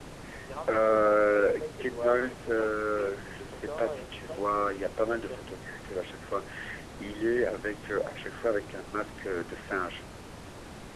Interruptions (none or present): present